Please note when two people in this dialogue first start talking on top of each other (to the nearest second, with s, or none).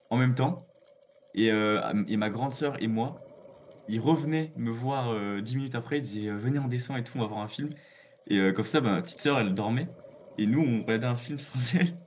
none